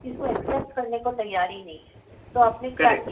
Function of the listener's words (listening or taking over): taking over